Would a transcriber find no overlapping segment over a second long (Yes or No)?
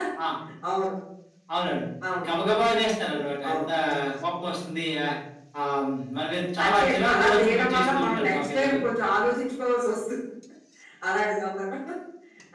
No